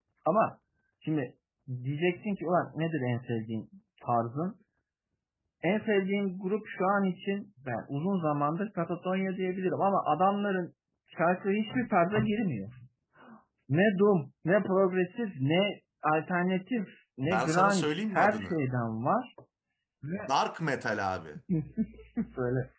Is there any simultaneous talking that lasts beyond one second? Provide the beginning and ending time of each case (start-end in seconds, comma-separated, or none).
17.2-18.6